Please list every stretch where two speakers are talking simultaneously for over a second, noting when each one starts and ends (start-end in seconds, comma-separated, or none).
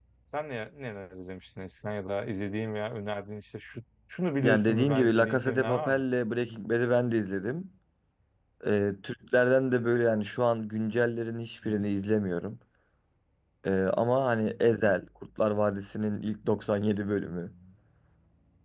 4.4-6.0